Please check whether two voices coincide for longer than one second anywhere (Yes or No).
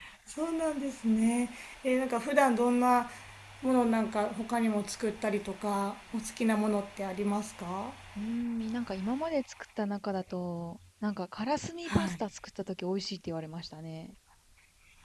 No